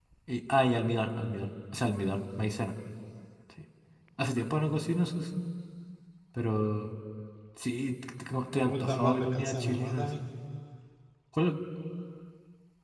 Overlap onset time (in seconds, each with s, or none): 8.5 s